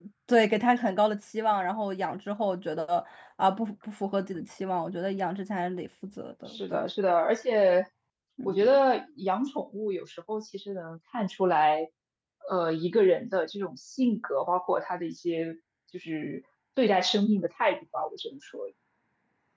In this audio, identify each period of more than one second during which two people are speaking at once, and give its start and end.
none

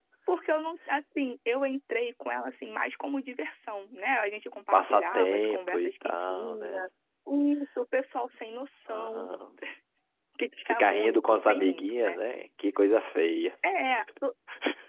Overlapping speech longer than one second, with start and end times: 4.7-6.8, 10.7-12.2

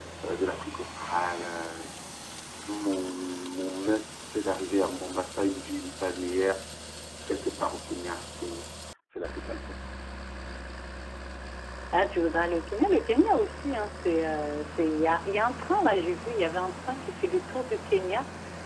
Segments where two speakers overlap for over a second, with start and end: none

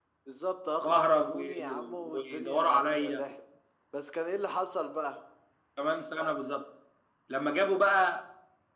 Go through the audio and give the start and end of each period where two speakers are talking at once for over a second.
0.8-3.3

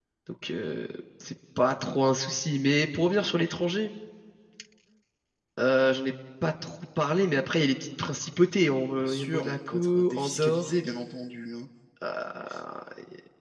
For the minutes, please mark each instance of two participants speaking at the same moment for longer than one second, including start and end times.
9.0-10.7

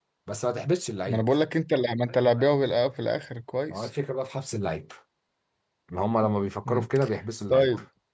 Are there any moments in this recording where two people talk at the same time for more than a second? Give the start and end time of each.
none

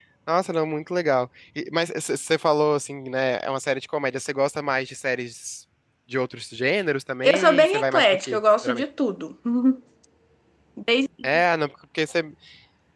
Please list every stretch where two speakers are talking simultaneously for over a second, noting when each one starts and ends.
7.2-8.8

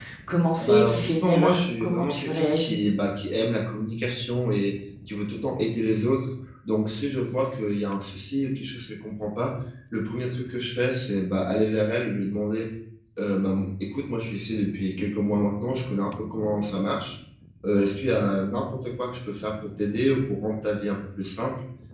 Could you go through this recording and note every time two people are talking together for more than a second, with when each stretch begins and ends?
0.6-2.8

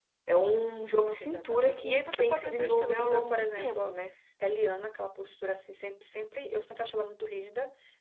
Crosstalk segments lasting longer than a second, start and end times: 1.2-4.0

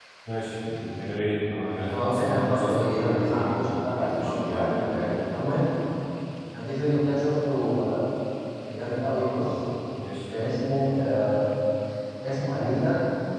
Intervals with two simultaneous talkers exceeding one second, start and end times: 1.9-4.9

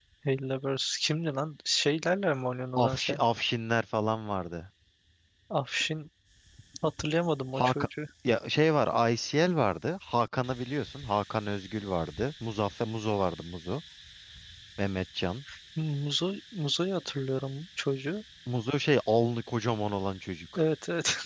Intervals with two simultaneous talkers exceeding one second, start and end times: none

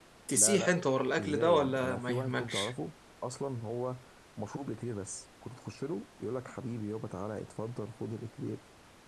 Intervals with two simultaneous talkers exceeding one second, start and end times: 1.2-2.7

